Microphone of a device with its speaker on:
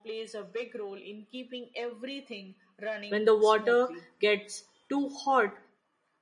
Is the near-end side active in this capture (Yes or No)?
Yes